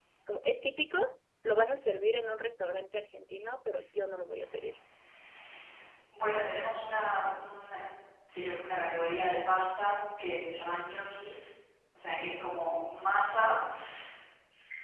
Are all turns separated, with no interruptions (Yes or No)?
Yes